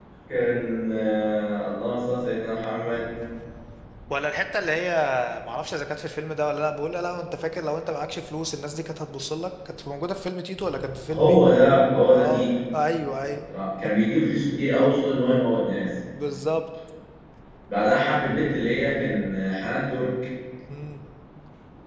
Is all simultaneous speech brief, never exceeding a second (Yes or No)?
Yes